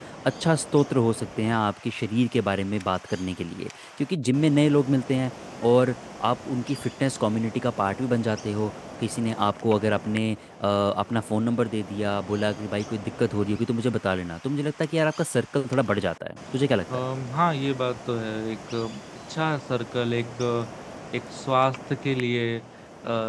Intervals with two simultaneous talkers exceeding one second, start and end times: none

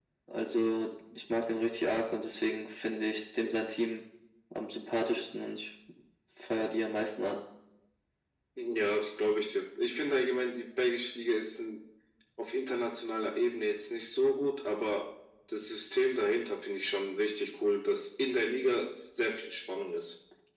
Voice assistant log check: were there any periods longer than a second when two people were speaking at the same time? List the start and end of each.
none

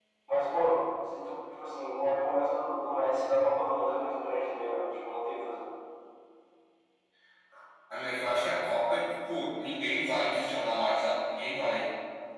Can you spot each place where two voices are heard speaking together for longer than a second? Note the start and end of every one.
none

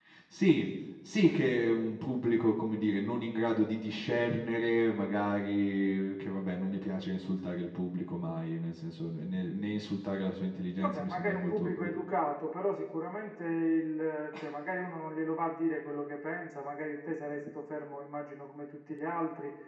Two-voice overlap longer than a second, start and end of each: 10.7-12.0

